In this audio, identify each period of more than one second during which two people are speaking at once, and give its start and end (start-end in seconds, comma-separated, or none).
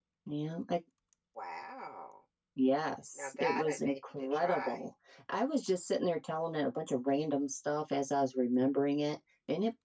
3.1-4.8